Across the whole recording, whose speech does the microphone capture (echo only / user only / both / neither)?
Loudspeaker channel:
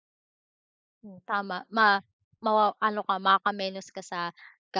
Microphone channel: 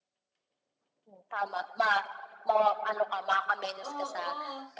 both